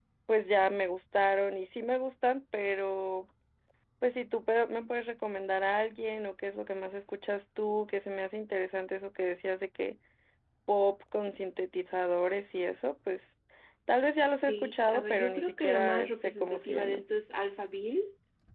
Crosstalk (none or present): present